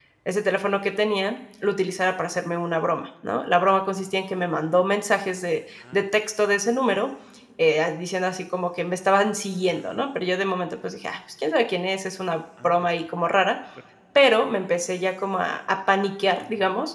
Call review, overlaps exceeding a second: none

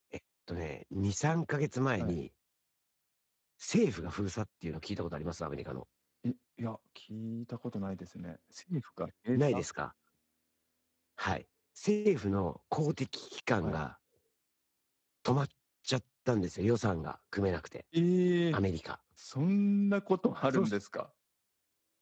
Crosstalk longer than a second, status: none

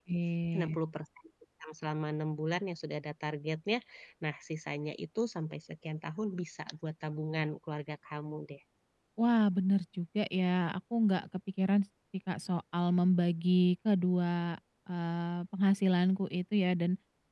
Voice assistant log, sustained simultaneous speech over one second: none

